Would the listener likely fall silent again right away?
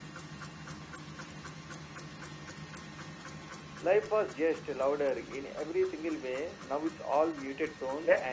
No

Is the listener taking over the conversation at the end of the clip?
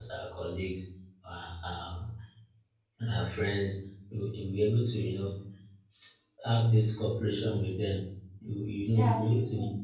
Yes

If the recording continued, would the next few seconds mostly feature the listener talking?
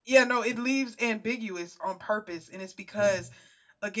No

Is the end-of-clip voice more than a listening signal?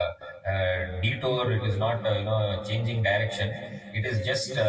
No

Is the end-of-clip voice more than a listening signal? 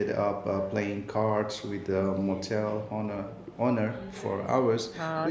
Yes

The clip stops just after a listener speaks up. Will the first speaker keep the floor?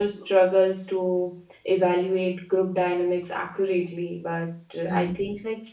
Yes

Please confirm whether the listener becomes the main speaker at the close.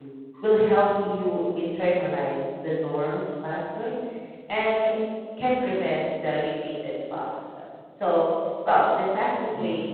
No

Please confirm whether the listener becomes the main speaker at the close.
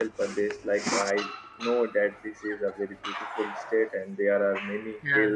No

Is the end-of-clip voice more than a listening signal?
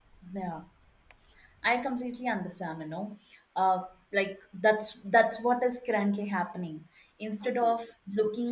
No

